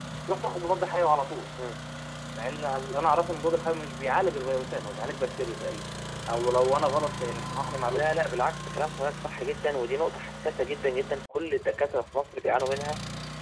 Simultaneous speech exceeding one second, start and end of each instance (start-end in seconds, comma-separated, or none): none